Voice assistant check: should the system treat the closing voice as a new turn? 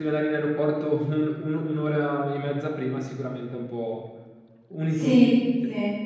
Yes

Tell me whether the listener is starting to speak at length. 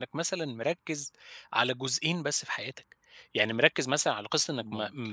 No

